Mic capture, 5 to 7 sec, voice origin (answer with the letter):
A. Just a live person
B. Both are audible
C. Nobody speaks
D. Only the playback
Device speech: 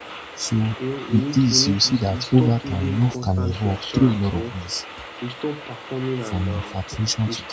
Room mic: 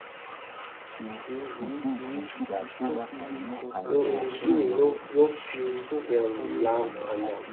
B